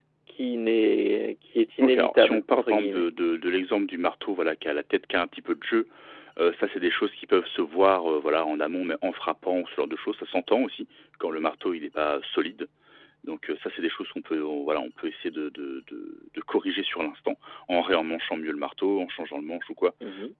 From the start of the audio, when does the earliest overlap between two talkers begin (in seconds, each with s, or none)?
1.8 s